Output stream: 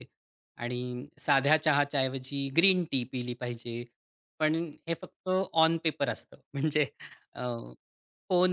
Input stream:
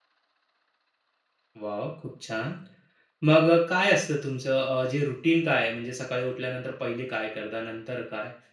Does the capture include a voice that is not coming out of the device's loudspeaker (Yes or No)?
Yes